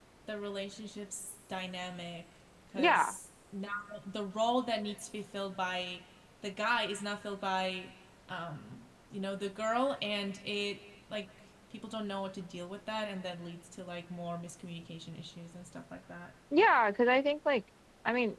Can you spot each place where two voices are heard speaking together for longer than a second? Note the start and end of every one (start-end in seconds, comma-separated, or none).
none